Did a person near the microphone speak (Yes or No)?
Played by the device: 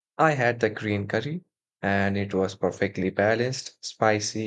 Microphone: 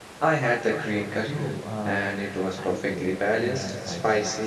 Yes